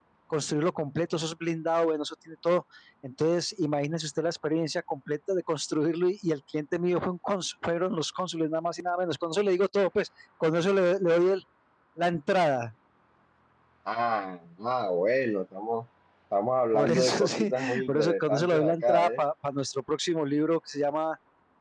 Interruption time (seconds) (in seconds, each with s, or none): 16.7 s